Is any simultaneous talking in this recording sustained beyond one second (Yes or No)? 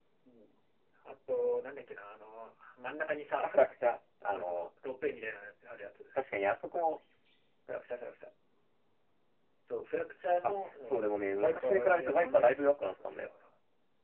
Yes